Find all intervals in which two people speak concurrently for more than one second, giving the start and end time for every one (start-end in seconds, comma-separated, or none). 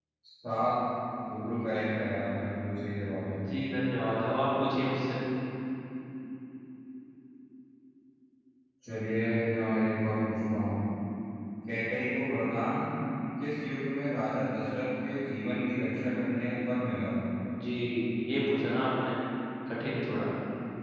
none